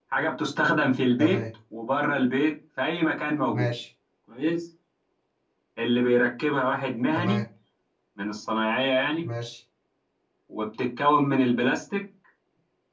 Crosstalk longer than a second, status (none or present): none